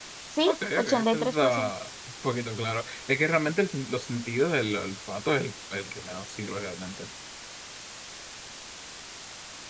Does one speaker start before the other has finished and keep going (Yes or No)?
Yes